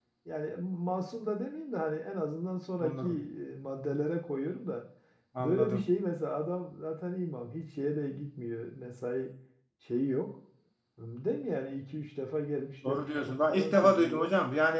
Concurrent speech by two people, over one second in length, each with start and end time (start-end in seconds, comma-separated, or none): 12.9-14.3